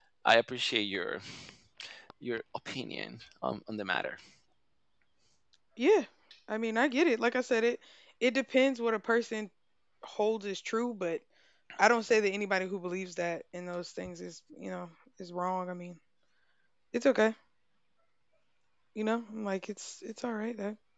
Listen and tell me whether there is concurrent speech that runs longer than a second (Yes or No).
No